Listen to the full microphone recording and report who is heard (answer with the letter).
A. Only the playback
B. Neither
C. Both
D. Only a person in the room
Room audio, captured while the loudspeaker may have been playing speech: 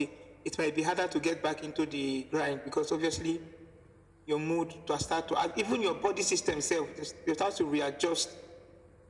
A